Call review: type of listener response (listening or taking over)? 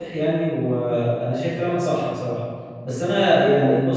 listening